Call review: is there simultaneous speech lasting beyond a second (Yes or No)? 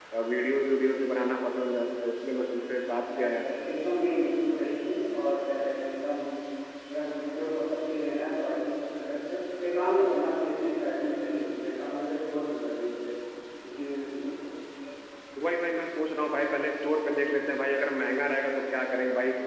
No